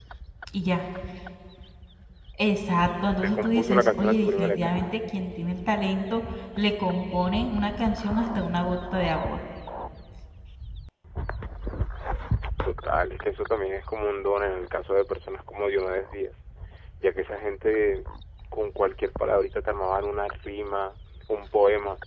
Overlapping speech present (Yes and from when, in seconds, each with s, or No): Yes, from 3.2 s